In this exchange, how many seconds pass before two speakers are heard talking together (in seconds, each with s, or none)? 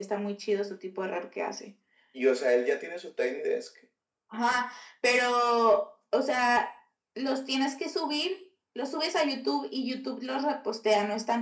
none